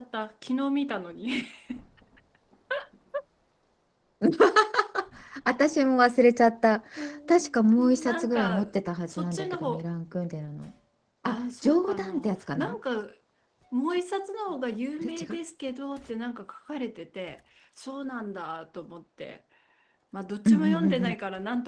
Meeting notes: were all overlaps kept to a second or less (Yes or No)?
No